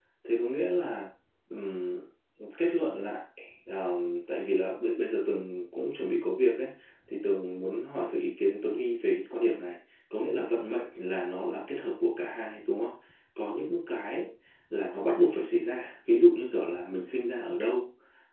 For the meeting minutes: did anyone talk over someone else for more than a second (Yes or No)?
No